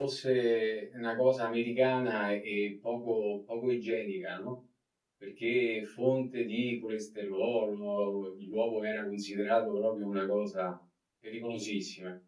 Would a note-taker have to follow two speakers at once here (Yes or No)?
No